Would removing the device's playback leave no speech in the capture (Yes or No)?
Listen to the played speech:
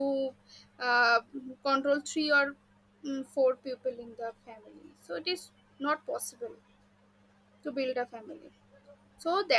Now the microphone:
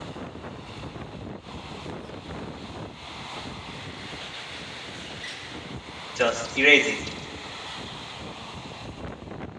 No